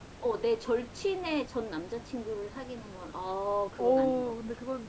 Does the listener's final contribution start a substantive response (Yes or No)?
Yes